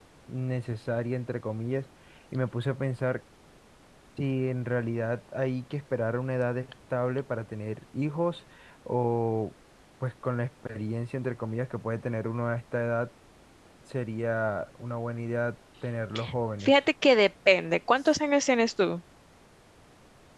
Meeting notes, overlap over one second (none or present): none